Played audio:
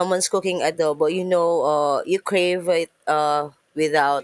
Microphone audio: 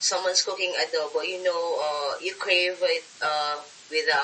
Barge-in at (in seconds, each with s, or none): none